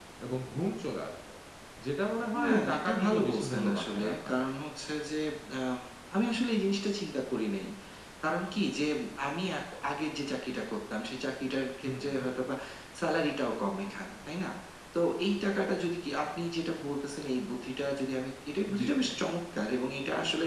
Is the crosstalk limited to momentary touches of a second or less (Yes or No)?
No